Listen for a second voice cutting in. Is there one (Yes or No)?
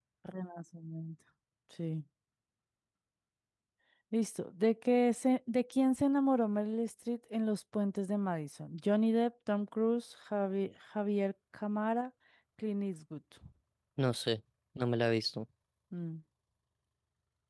No